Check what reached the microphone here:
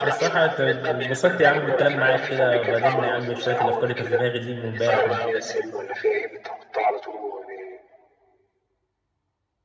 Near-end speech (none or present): present